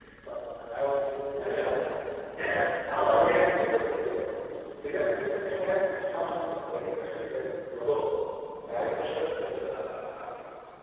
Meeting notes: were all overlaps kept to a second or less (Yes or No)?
Yes